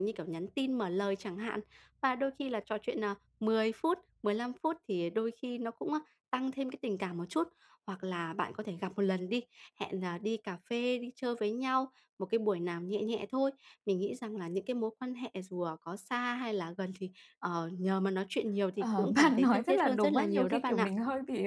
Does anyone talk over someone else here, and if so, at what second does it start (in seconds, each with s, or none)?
18.8 s